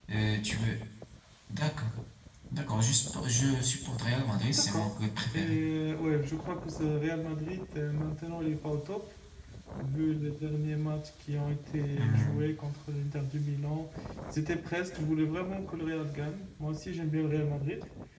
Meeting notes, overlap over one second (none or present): none